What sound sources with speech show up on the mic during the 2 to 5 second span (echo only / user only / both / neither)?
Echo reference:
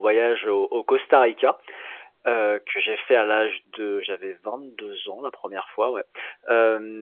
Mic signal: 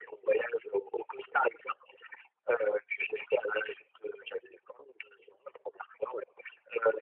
echo only